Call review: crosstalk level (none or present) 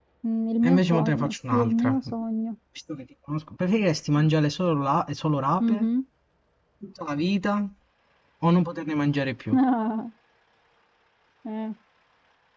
present